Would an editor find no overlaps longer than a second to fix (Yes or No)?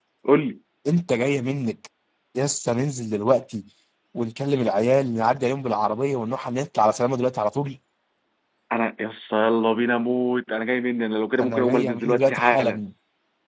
No